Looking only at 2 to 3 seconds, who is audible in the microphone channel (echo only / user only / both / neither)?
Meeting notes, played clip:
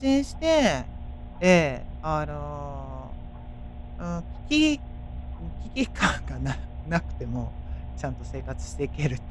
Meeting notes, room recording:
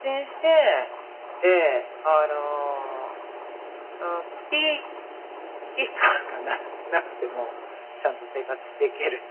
echo only